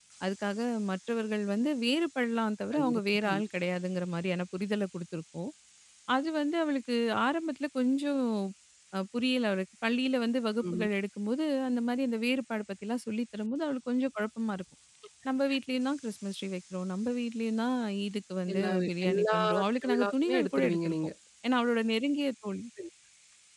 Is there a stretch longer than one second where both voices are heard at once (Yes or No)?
Yes